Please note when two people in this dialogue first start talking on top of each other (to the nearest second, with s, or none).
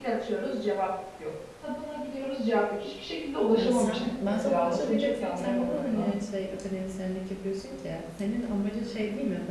4 s